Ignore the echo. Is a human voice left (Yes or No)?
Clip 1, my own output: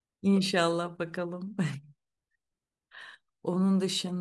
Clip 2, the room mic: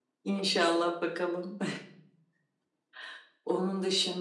No